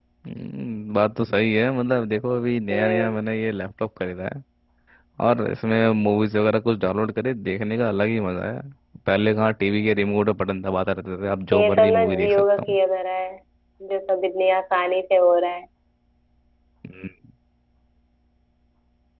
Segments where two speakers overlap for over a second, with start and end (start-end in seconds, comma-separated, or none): 11.5-12.8